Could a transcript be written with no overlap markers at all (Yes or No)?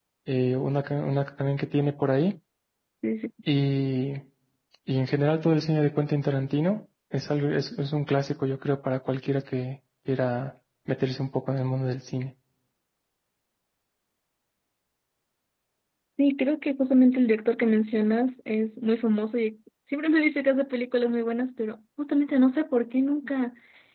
Yes